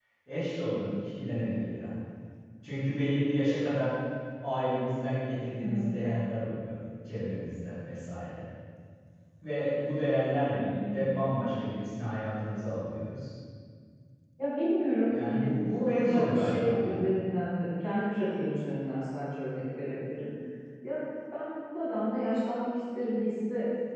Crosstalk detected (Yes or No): Yes